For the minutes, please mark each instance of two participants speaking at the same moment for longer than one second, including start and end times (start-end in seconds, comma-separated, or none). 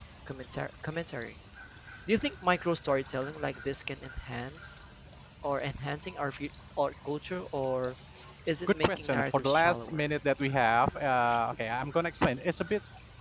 8.7-10.0